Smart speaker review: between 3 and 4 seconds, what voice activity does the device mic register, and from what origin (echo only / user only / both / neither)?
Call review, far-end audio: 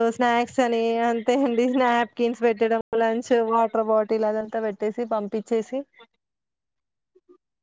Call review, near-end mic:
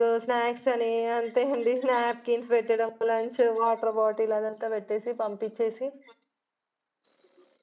echo only